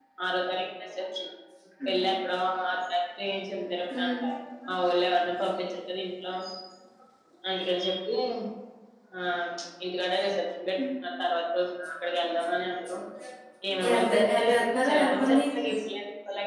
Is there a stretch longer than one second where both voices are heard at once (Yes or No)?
Yes